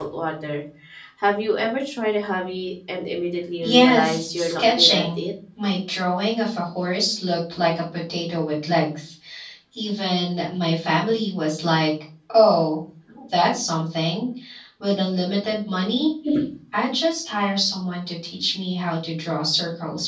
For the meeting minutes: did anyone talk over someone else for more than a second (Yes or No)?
Yes